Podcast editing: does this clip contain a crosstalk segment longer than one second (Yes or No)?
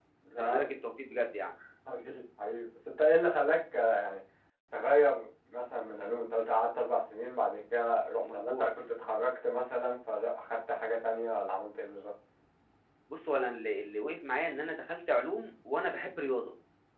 No